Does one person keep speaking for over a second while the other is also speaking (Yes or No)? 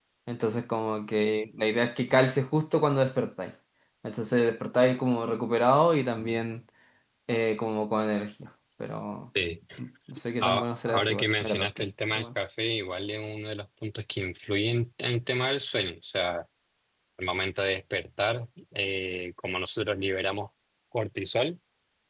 Yes